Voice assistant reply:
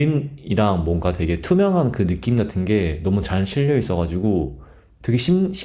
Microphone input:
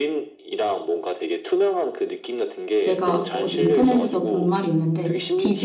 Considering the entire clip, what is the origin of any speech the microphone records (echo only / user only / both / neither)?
both